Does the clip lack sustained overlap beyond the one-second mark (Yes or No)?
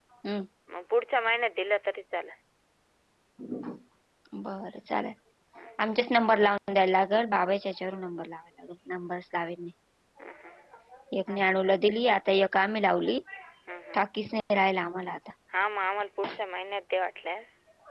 Yes